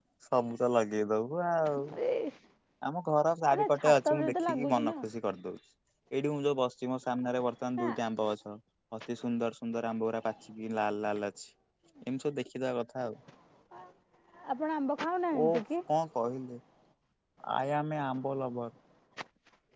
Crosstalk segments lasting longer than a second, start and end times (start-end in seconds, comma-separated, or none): 3.5-4.9